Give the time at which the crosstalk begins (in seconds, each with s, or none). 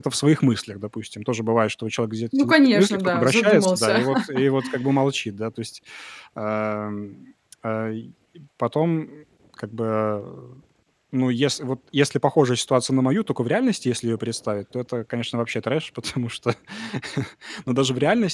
2.3 s